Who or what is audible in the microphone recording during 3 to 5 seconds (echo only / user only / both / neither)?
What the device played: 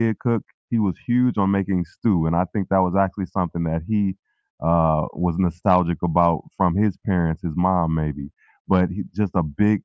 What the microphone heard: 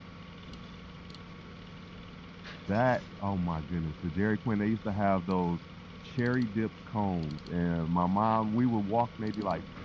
user only